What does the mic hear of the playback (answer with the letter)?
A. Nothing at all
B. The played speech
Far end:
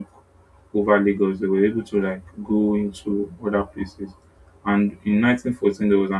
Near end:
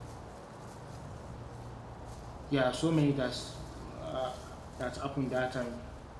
A